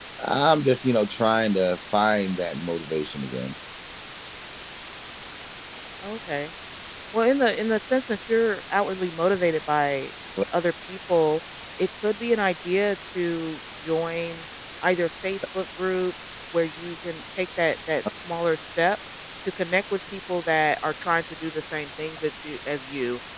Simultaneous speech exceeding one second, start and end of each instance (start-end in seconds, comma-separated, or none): none